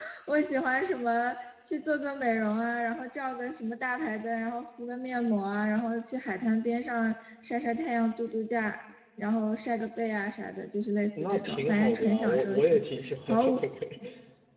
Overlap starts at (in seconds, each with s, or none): 11.2 s